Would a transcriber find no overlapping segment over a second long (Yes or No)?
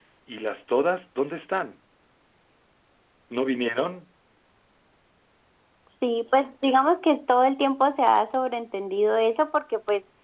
Yes